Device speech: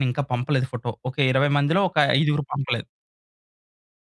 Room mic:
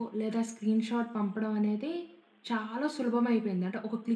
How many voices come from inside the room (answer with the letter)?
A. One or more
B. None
A